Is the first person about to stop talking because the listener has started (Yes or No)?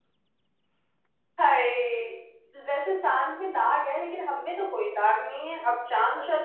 No